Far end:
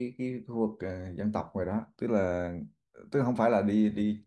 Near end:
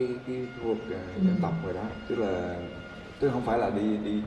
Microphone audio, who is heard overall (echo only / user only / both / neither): both